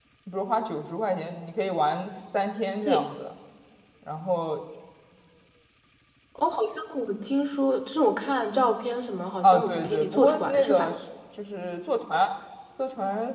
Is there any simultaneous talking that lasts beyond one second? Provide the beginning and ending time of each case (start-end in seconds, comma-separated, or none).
9.4-10.9